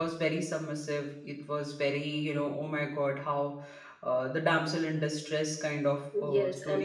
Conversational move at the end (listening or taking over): taking over